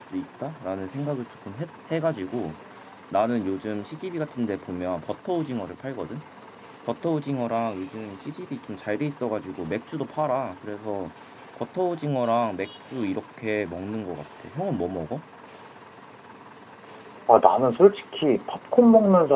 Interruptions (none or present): none